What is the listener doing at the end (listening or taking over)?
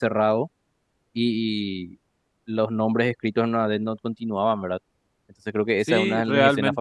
taking over